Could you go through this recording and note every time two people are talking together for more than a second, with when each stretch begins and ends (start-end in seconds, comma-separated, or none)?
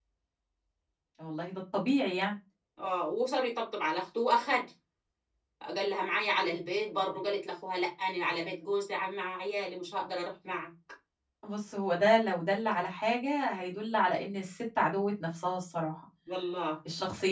none